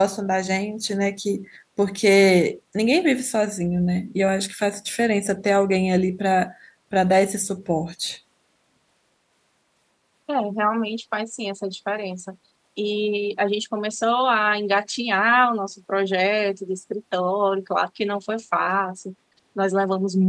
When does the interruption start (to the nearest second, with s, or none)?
none